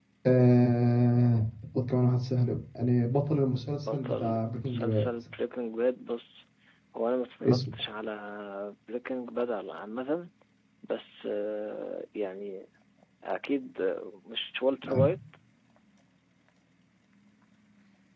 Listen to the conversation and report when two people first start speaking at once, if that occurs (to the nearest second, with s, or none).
4 s